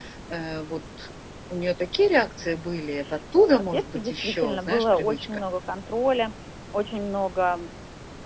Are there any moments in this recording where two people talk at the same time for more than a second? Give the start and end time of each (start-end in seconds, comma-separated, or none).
3.6-5.4